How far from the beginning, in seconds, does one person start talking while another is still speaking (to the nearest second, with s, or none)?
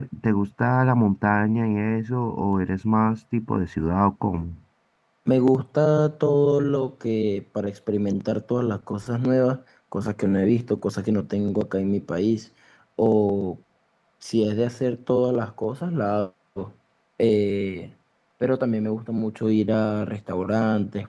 none